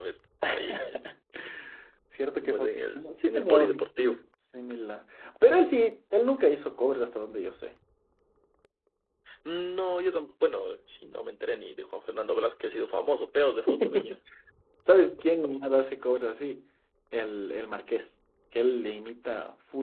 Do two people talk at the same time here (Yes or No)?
Yes